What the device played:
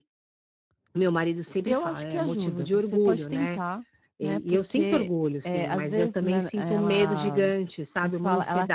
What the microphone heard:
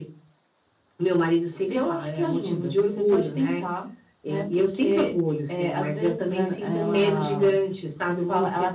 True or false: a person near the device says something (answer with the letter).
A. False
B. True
A